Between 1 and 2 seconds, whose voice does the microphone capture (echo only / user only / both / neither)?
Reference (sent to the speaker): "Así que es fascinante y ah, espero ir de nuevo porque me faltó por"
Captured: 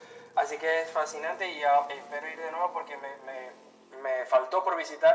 echo only